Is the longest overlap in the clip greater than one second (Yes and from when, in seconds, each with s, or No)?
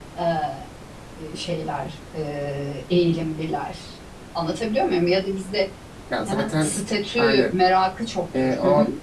No